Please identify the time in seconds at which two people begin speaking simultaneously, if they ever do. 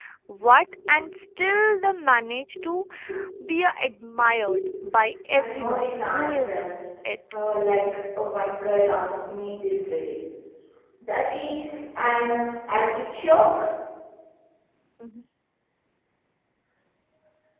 5.3 s

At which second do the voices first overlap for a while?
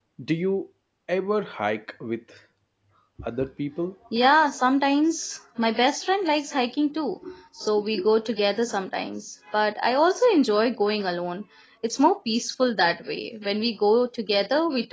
none

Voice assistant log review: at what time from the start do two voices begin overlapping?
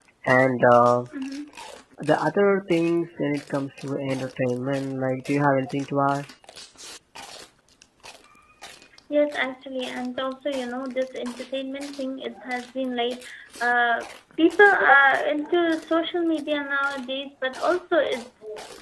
none

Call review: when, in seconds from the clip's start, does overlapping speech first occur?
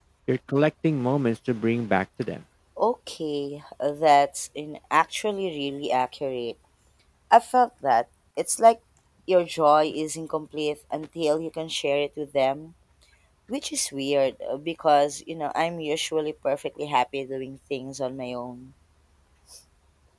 none

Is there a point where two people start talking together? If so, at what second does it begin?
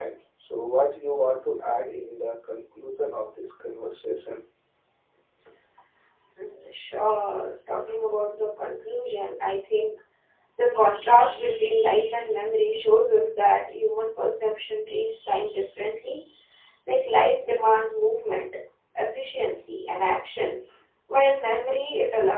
none

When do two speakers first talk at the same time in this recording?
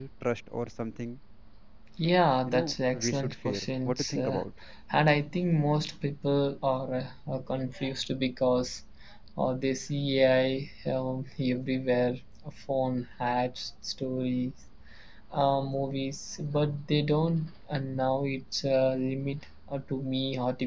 2.5 s

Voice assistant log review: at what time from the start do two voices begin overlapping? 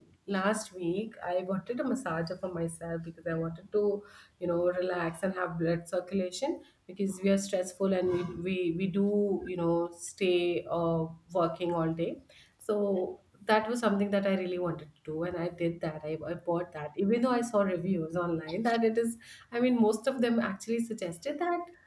none

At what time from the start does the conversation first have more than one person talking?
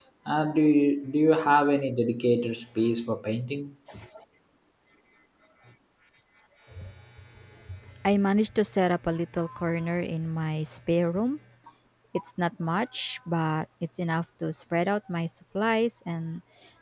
none

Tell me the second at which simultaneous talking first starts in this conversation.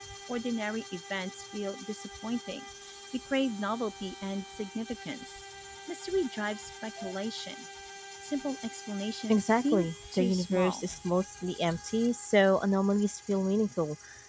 9.3 s

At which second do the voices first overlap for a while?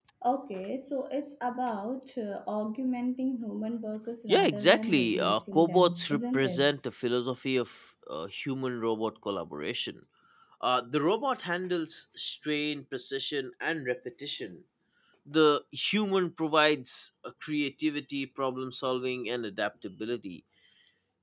4.3 s

